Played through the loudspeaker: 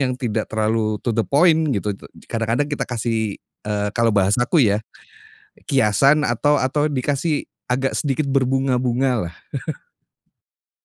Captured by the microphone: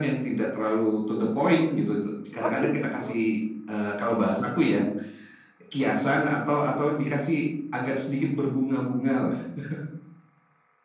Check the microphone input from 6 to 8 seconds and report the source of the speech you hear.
echo only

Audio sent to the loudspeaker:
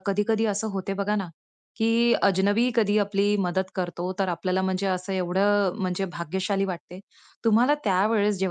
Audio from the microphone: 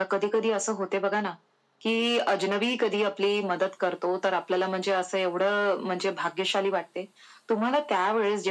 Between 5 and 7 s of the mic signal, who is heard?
echo only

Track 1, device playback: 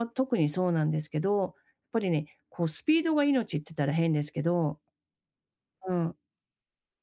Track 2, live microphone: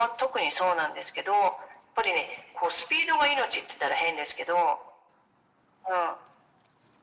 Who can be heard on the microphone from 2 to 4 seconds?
echo only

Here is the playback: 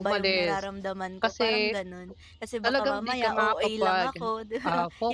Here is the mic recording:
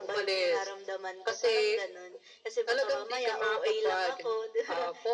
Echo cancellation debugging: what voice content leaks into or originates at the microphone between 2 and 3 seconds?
echo only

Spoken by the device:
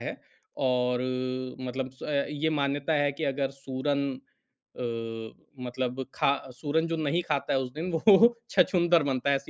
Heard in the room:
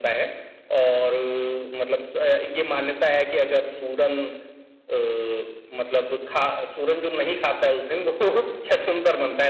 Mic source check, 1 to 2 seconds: echo only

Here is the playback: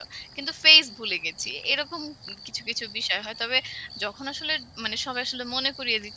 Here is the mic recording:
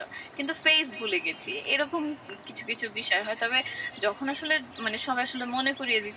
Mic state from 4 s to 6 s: echo only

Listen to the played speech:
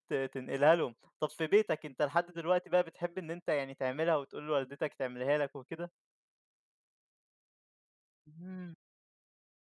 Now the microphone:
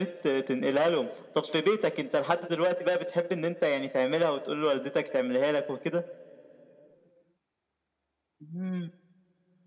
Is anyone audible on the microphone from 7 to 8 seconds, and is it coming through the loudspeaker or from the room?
neither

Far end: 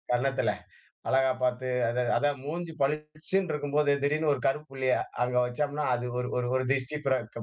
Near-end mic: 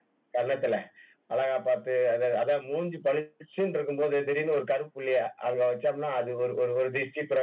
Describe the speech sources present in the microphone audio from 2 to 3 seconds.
echo only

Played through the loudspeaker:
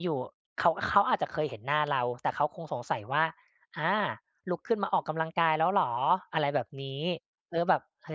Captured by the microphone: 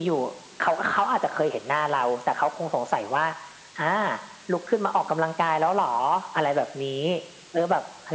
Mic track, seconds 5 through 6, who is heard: echo only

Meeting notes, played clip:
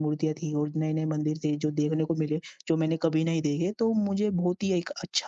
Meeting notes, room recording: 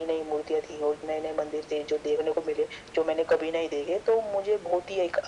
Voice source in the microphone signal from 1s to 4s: echo only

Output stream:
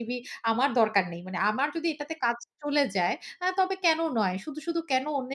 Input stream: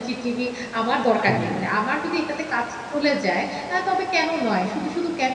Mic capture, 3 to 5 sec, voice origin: echo only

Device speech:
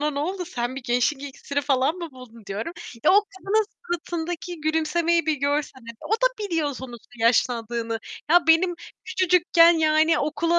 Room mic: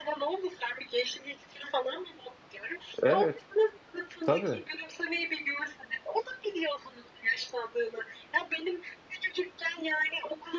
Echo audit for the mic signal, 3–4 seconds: both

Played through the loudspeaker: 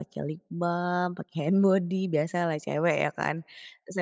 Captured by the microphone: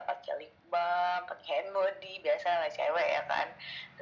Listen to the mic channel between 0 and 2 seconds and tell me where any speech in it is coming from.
echo only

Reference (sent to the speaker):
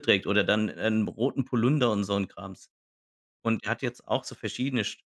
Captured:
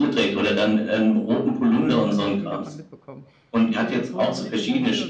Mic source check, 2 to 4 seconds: both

